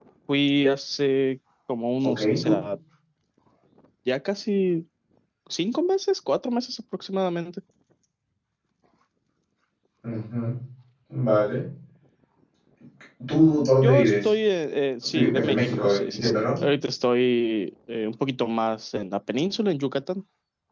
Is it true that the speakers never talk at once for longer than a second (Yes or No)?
No